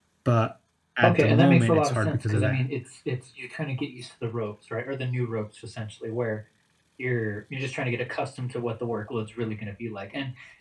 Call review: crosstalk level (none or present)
present